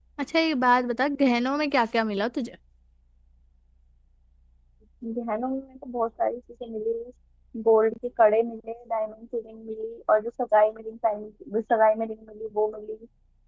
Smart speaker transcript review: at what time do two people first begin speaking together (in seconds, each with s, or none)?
none